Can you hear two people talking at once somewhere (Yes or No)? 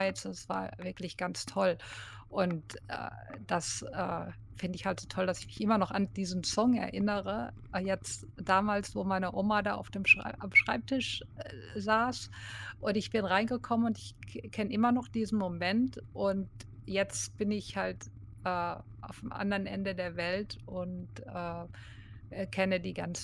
No